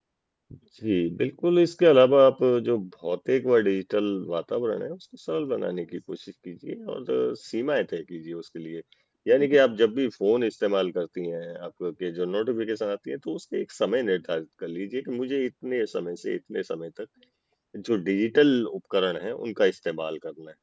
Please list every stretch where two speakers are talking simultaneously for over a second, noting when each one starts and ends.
none

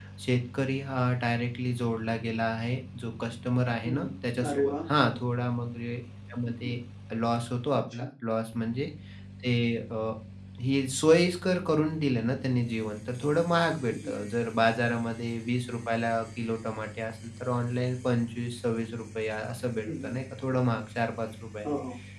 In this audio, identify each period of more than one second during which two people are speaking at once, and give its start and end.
none

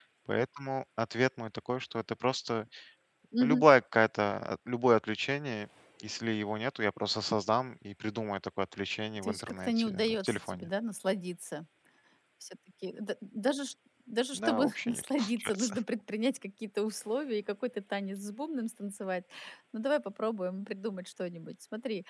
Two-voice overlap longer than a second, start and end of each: 9.2-10.7, 14.3-15.8

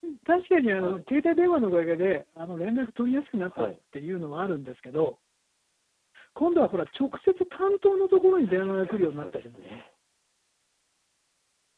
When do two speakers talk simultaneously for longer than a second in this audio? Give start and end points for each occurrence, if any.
8.4-9.8

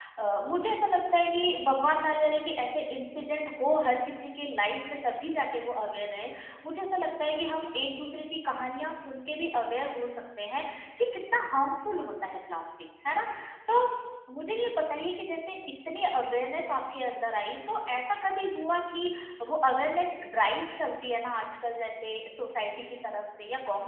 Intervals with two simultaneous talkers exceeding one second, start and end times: none

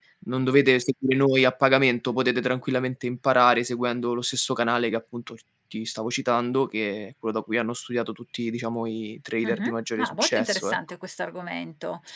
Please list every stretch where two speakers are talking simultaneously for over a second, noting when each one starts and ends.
9.4-10.8

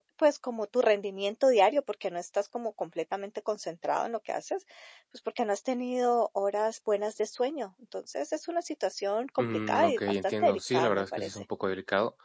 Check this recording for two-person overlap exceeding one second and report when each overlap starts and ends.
9.4-11.4

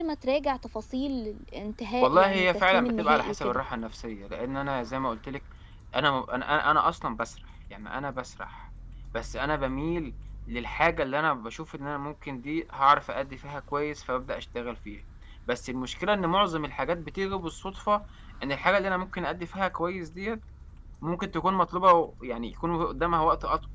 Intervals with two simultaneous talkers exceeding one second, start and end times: 2.0-3.6

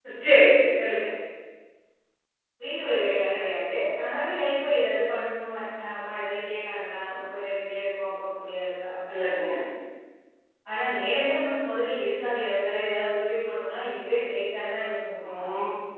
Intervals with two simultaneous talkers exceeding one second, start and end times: none

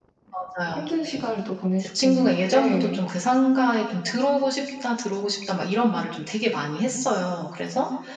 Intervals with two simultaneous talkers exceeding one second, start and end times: 1.8-3.0

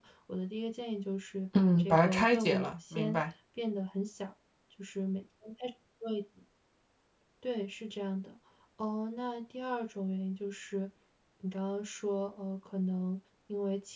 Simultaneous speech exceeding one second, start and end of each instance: 1.6-3.2

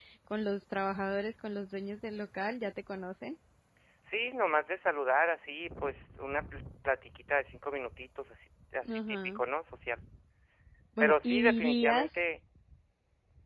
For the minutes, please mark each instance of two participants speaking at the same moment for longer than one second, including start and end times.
11.0-12.2

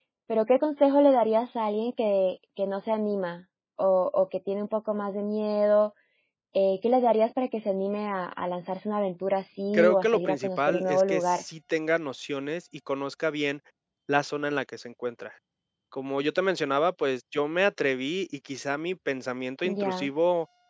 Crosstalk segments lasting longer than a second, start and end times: 9.7-11.4

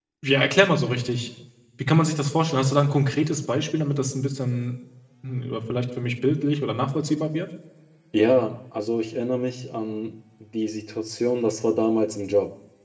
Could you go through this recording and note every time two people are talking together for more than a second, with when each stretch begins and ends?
none

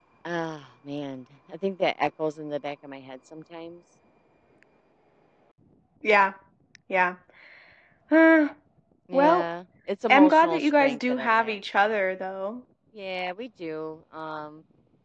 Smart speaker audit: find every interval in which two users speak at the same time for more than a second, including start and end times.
10.1-11.6

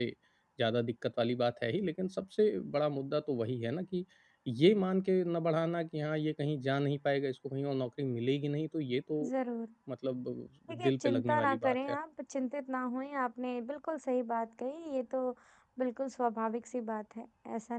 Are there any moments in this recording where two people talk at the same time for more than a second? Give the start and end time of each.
10.7-11.9

